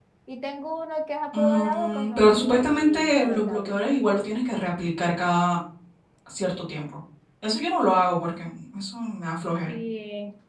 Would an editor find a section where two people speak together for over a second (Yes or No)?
Yes